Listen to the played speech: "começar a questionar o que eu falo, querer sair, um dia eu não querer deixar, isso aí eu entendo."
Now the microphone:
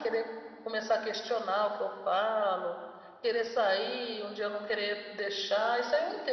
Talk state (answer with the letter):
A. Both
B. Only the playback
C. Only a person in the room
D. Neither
B